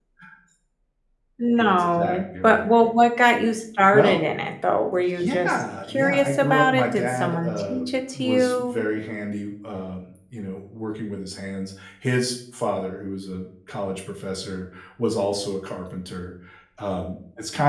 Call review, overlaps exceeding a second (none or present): present